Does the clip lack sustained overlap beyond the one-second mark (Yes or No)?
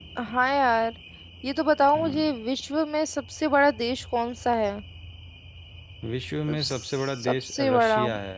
No